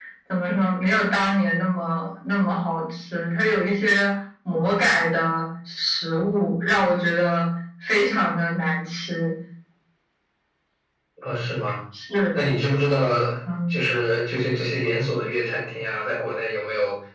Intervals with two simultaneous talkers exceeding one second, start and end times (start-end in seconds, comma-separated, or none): none